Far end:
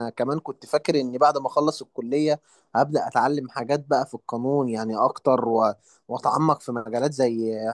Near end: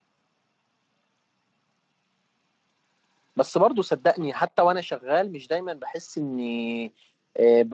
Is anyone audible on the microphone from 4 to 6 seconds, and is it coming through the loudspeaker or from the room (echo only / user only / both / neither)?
user only